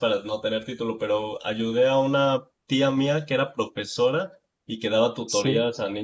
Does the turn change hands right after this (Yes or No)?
No